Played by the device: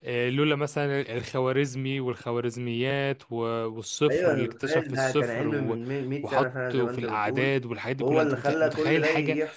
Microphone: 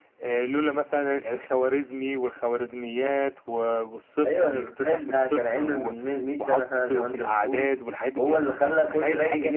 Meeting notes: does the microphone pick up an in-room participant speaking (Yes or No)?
No